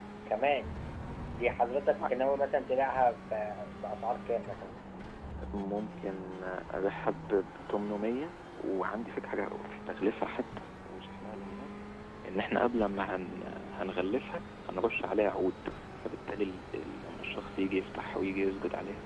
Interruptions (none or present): none